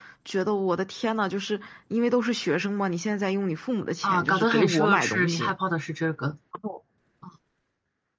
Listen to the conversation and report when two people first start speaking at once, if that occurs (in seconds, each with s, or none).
4.0 s